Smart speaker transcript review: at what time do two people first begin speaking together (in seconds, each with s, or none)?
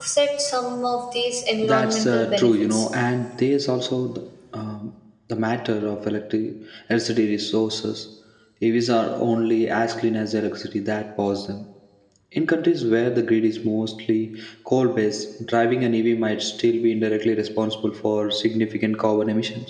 1.6 s